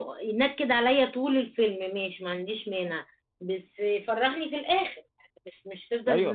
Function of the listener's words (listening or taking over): taking over